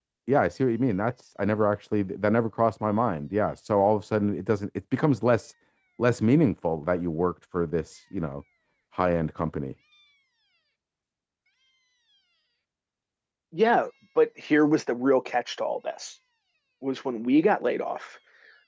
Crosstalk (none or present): none